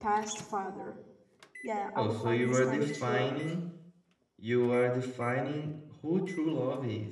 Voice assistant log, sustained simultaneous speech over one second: present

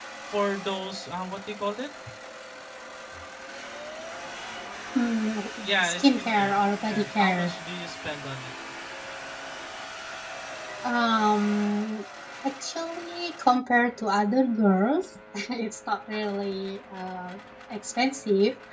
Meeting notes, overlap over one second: present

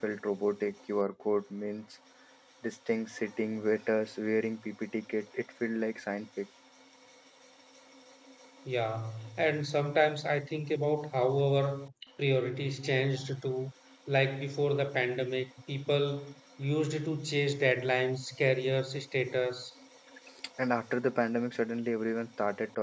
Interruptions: none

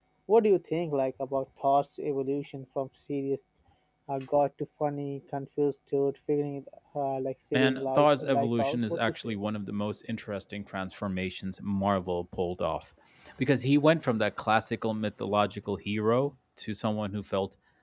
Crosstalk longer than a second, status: present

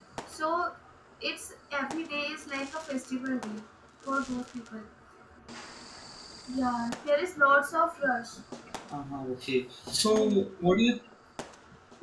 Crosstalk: none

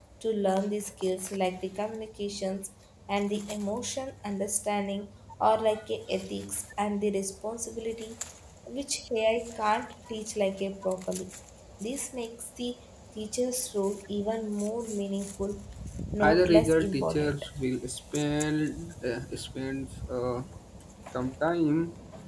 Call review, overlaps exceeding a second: present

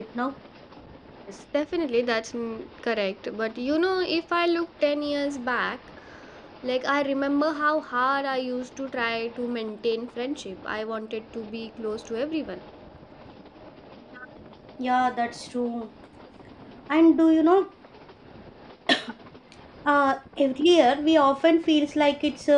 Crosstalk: none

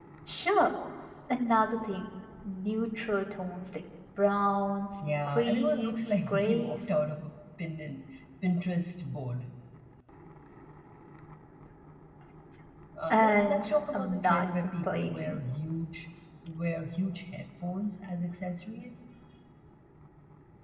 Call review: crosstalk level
present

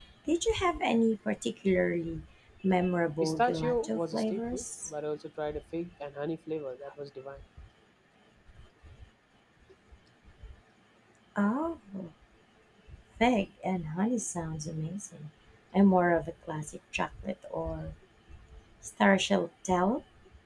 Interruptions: present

